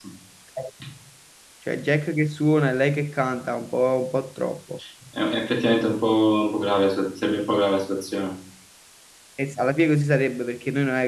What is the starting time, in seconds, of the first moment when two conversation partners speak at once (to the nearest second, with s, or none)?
none